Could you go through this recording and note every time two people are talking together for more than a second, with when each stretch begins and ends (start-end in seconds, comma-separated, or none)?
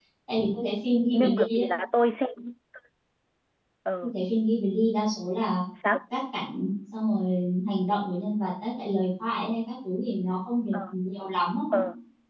none